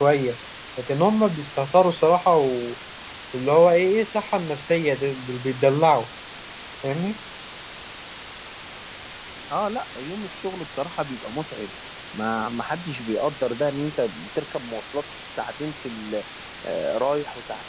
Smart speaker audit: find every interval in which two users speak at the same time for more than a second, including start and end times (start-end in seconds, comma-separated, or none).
none